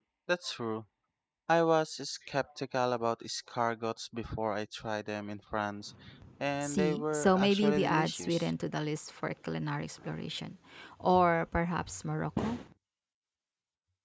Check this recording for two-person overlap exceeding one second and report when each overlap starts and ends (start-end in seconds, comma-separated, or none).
6.6-8.5